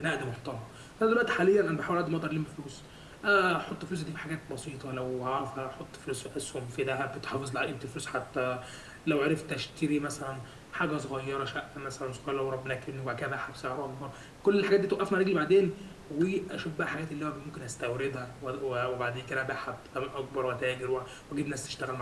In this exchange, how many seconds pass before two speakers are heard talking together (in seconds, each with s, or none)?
none